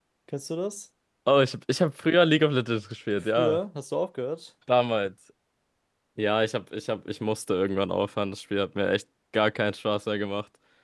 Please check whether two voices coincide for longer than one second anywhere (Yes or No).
No